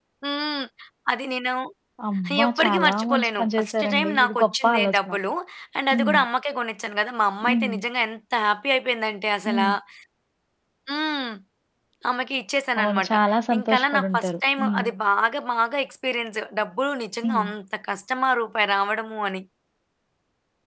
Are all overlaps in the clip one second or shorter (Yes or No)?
No